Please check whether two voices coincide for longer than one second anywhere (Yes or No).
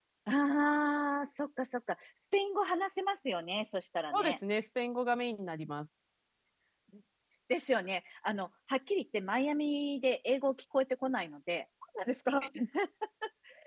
No